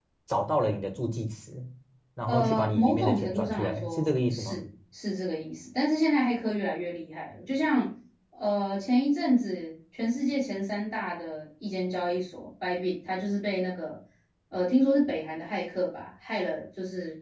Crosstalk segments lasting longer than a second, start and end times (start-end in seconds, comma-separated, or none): 2.3-4.6